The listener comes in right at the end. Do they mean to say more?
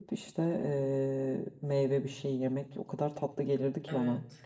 Yes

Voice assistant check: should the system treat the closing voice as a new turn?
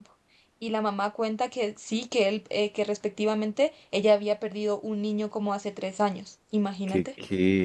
Yes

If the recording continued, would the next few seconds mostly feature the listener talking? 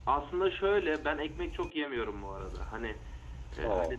No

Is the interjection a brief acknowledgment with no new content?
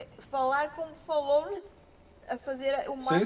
No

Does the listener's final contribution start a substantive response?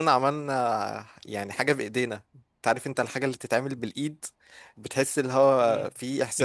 Yes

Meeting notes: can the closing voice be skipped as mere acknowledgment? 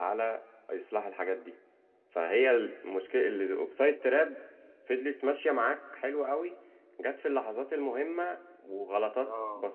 Yes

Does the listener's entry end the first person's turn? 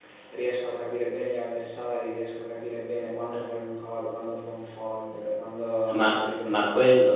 Yes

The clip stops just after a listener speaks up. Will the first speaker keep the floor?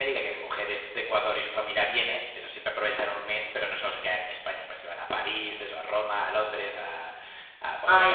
No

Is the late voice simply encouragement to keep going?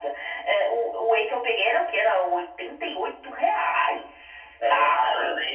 No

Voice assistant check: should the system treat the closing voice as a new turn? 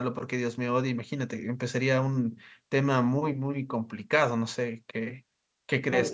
Yes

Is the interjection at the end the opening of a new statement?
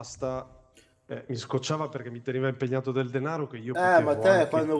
Yes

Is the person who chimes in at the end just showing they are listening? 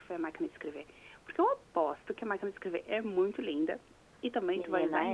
Yes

